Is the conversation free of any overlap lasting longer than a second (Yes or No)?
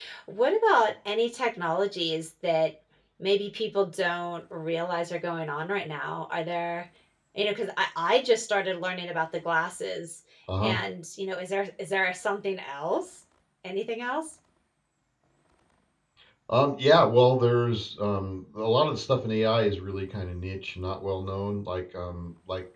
Yes